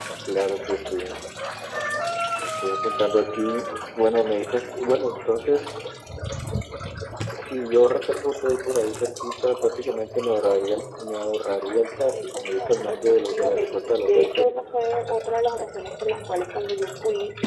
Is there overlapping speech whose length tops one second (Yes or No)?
Yes